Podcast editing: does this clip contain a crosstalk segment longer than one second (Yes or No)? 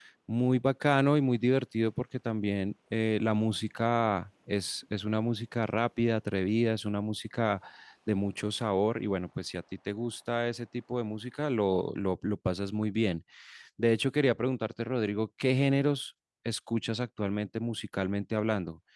No